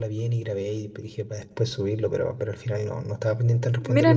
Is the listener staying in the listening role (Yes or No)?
No